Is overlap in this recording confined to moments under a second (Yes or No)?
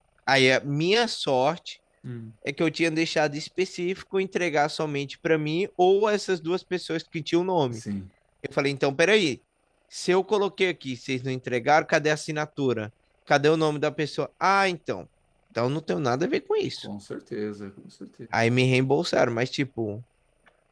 Yes